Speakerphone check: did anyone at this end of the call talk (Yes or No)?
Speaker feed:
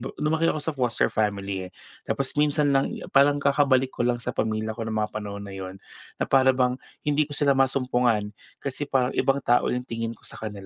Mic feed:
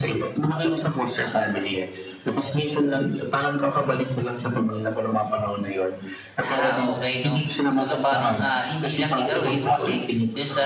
Yes